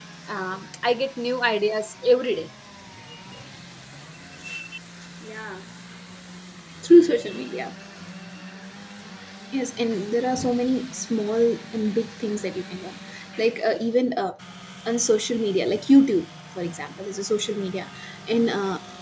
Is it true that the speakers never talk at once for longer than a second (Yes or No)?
Yes